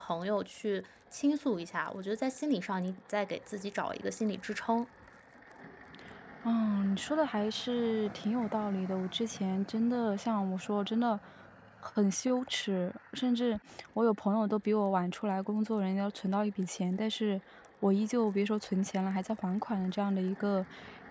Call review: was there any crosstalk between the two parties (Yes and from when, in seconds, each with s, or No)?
No